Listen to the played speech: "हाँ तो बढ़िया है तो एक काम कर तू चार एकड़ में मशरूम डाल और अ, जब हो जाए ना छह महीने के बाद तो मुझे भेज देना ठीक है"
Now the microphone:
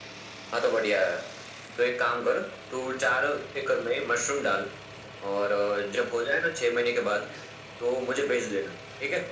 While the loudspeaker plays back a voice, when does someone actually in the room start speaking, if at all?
none

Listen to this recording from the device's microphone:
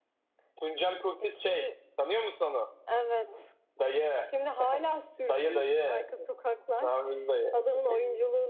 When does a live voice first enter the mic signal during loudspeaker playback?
none

